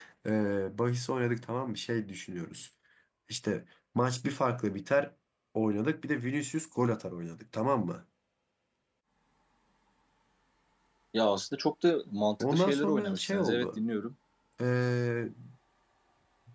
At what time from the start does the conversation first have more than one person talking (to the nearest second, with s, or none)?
12 s